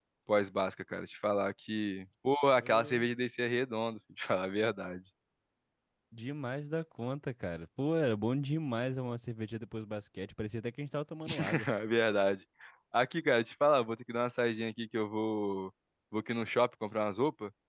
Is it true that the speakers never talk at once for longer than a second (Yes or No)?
Yes